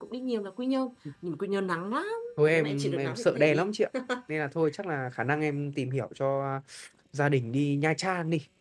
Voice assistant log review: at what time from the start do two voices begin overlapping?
3 s

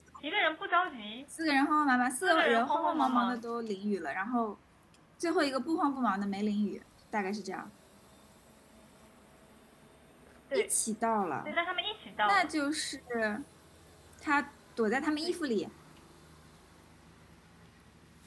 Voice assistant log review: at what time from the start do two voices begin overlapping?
2 s

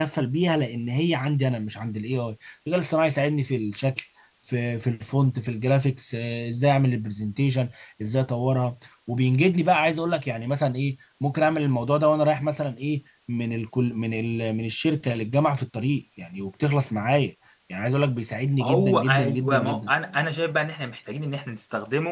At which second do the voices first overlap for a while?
19 s

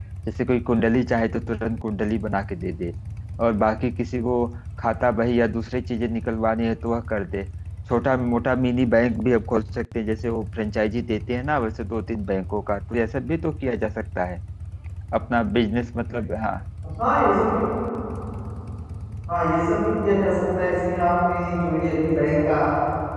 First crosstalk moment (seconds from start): none

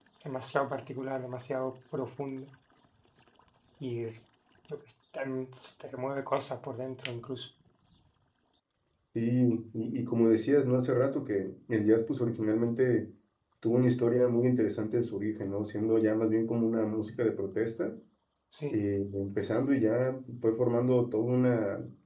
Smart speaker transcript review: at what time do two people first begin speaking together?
none

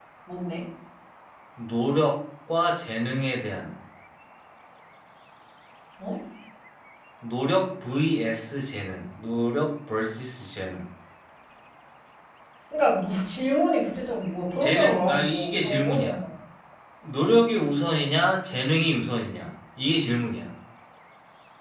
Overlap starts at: 15 s

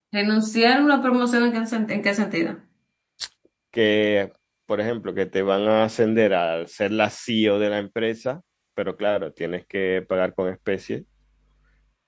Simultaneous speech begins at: none

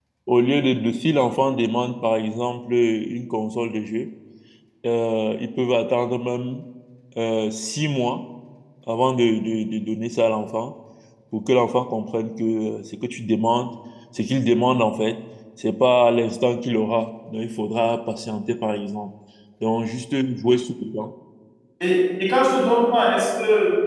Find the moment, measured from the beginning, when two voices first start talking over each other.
none

